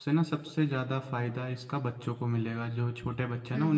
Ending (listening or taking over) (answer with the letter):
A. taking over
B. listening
B